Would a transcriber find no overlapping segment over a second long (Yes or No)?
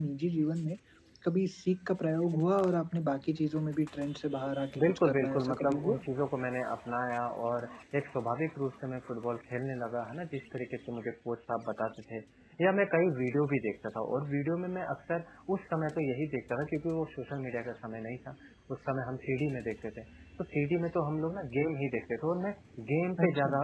No